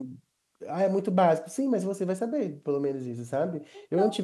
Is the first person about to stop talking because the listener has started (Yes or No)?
No